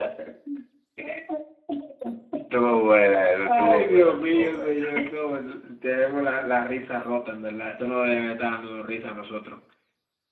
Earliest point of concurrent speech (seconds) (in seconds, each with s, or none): 3.5 s